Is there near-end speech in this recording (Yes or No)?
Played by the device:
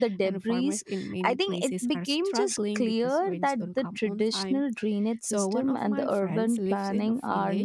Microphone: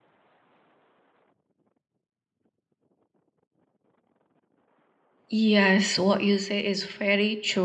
Yes